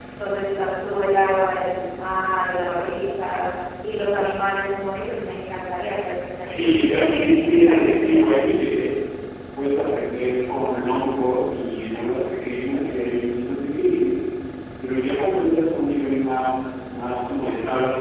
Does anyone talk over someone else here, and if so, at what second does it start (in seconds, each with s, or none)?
6.4 s